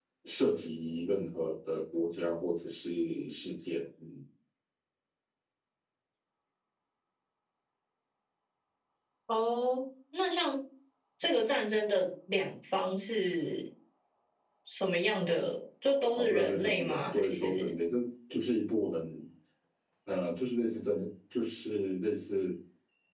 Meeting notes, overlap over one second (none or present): present